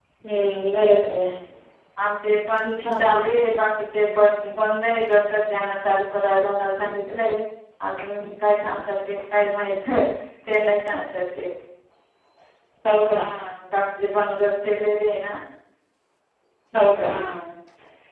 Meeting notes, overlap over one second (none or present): none